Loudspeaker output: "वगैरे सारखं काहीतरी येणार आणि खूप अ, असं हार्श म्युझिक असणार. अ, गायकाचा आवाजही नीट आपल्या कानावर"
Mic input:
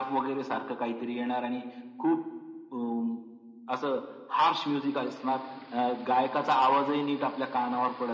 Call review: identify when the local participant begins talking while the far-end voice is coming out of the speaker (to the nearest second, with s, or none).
none